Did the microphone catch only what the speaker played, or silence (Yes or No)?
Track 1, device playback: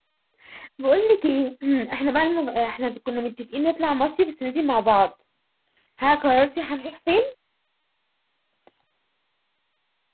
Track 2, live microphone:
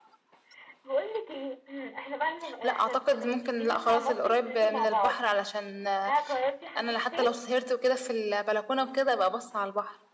No